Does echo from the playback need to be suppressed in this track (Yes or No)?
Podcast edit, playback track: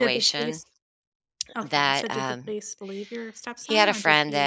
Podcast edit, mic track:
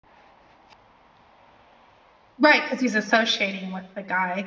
No